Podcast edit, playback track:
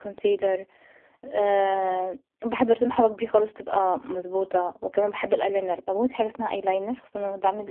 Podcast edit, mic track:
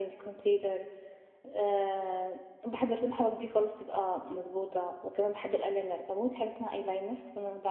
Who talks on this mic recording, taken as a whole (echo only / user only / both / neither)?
echo only